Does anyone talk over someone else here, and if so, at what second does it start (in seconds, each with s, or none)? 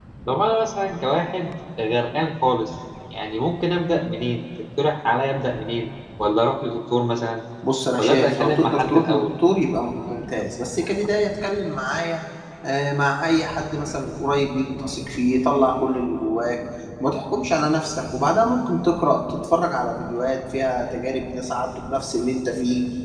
8.0 s